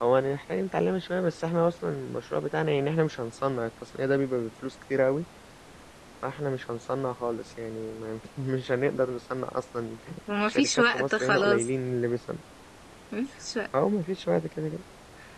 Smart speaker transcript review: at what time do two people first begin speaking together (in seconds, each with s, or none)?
10.4 s